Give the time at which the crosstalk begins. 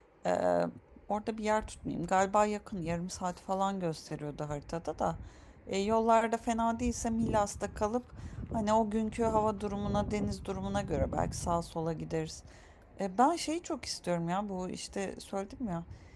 none

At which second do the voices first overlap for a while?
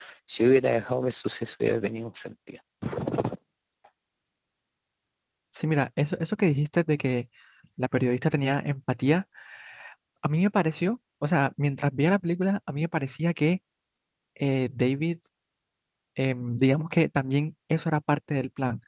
none

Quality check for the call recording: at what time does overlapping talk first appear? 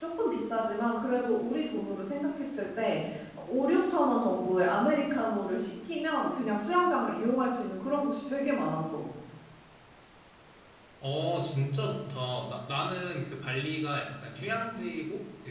none

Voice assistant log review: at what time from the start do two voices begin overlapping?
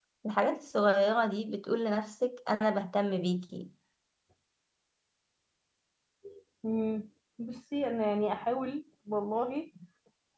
none

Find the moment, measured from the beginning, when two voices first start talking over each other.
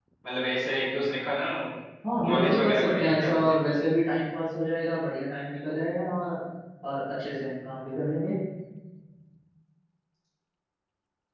2.2 s

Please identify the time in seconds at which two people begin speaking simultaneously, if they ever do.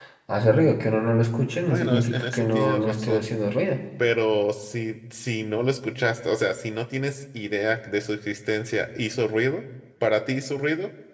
1.7 s

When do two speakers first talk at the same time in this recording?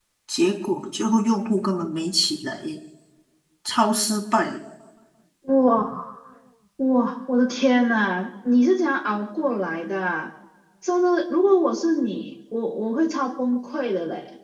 none

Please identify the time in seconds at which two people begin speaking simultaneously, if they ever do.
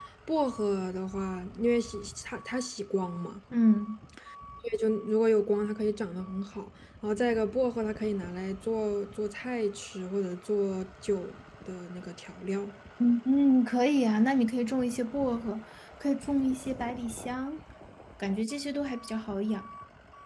none

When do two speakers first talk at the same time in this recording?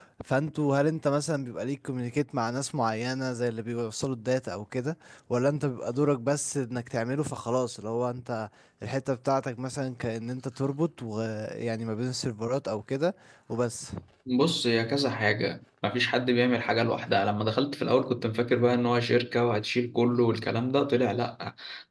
none

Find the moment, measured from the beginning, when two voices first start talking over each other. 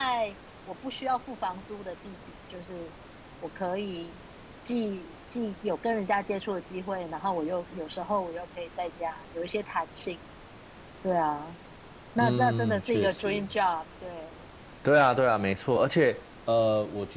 12.2 s

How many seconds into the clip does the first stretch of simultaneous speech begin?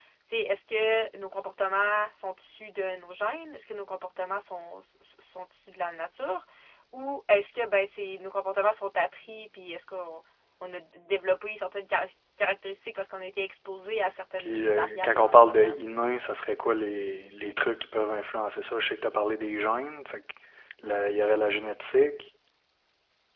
14.4 s

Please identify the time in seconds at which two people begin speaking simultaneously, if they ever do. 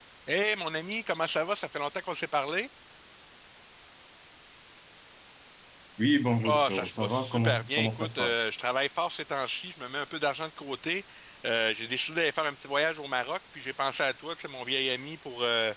6.4 s

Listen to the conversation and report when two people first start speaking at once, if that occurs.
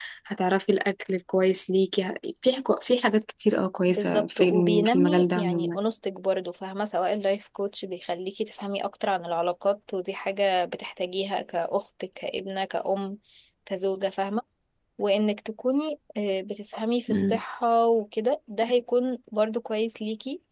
3.9 s

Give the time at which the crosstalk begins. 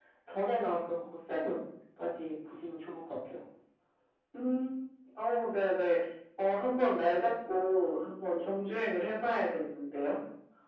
none

